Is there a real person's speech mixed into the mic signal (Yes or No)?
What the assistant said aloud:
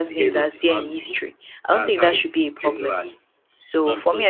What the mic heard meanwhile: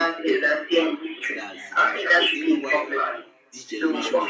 Yes